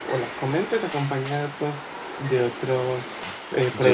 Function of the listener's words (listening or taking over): taking over